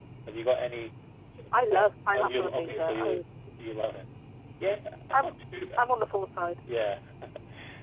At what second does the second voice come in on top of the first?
1.5 s

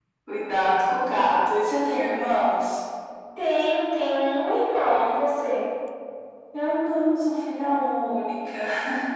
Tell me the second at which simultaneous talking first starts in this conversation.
none

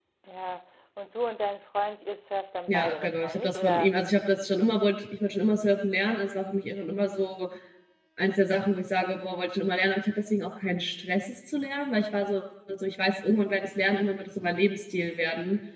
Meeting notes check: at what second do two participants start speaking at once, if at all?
2.7 s

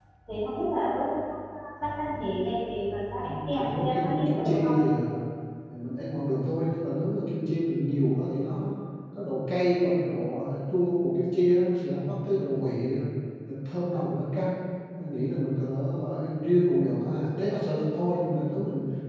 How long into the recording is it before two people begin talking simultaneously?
3.5 s

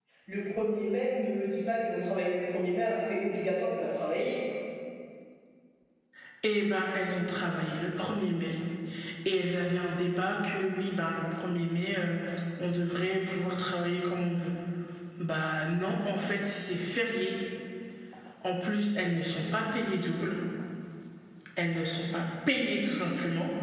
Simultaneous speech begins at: none

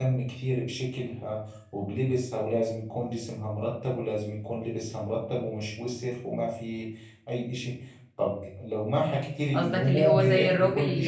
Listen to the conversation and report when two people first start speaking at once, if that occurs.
9.5 s

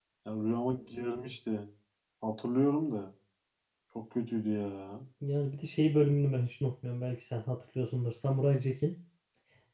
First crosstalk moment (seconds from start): none

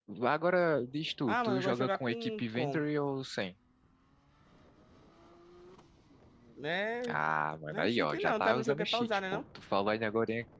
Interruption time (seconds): 1.2 s

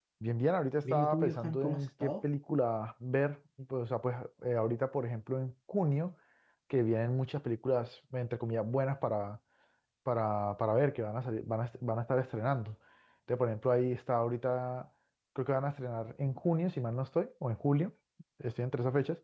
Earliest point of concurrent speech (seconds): 0.8 s

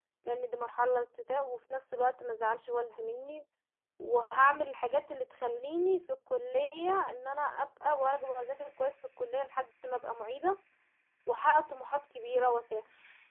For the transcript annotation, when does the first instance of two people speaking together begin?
none

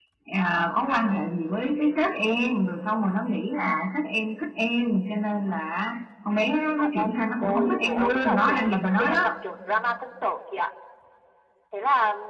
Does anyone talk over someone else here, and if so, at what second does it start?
6.8 s

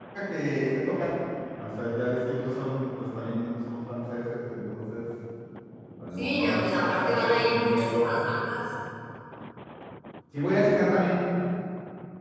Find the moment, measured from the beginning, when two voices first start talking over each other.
6.2 s

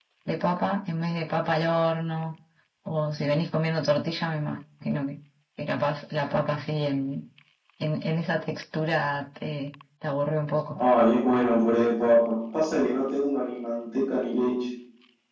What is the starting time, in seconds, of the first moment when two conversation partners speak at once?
none

